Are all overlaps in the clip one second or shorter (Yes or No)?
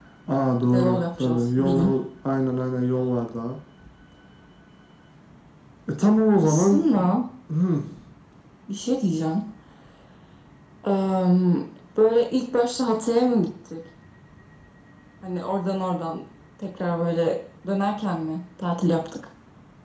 No